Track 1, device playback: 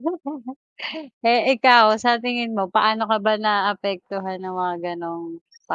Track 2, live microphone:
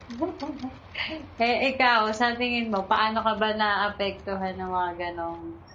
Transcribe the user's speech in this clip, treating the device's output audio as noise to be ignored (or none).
none